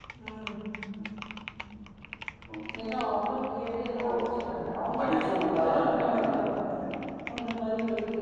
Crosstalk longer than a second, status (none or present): present